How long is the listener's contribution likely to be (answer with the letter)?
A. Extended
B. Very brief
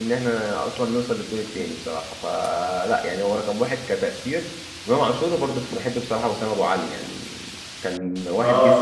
A